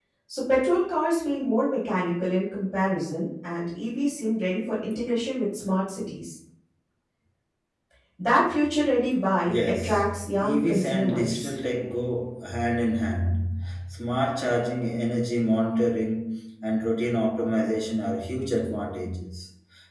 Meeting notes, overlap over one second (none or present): present